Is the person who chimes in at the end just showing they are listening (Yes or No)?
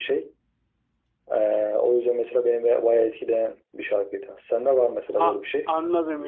No